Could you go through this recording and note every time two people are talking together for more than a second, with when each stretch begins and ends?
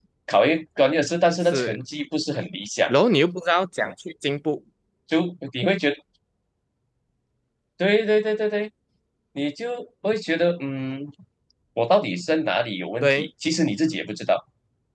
none

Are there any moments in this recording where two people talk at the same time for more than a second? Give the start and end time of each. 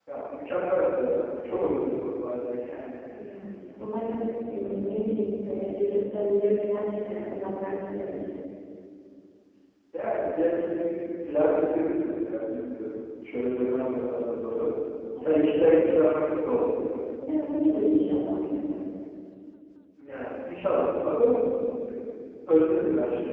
none

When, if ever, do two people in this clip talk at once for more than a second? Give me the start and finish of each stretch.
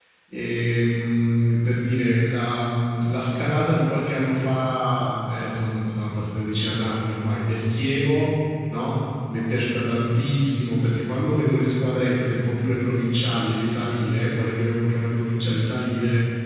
none

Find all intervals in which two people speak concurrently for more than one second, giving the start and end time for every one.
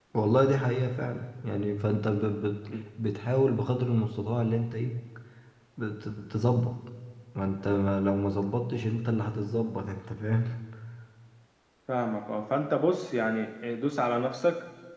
none

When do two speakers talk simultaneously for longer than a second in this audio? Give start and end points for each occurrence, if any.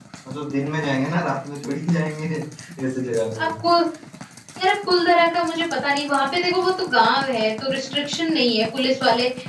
none

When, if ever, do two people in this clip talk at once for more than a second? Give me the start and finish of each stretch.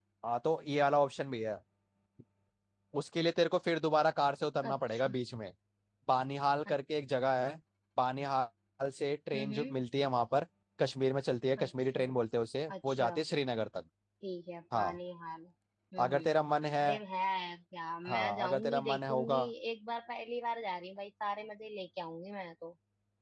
18.1-19.4

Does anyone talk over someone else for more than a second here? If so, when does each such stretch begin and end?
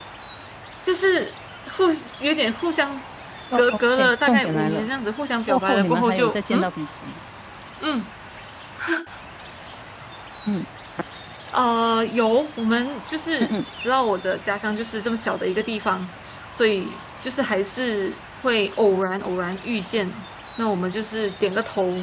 3.5-4.9, 5.5-6.7

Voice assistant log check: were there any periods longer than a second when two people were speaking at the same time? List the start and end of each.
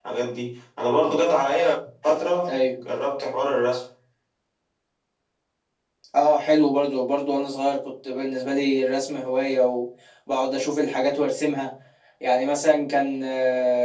none

